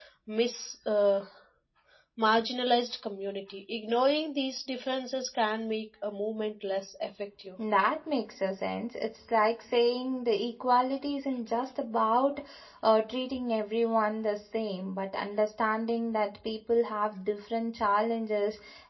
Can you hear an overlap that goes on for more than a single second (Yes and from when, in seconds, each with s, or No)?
No